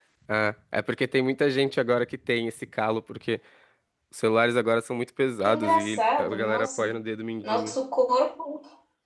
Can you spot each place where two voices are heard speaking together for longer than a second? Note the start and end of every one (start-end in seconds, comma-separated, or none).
5.4-6.9